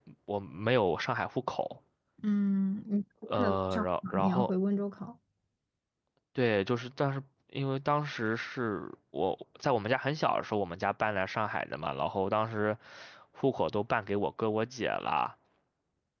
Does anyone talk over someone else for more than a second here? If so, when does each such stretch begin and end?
3.3-4.5

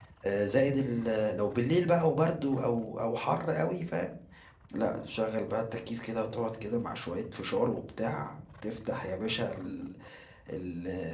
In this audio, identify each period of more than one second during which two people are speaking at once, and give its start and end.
none

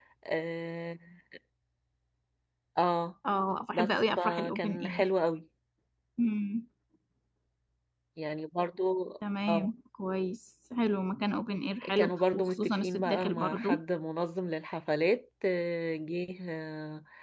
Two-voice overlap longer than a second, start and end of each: 3.7-5.1, 11.9-13.8

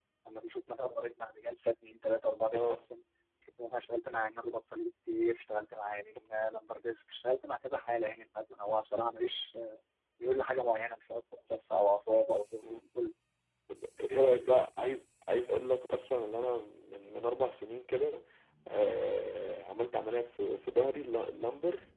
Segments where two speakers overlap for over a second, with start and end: none

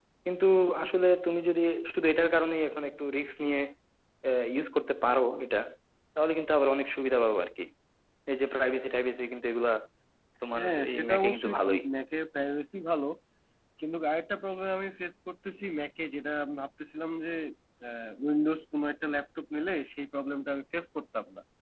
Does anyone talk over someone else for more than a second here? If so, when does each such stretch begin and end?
10.6-11.8

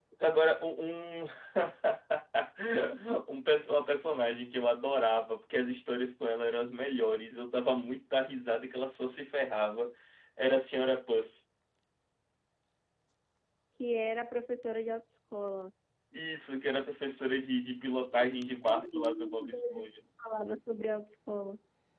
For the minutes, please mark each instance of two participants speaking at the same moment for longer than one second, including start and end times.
18.7-19.9

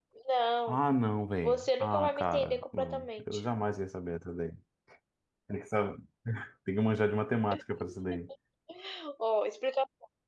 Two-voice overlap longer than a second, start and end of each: 1.4-3.4

